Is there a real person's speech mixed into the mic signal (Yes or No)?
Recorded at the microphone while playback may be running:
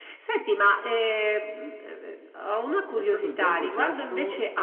Yes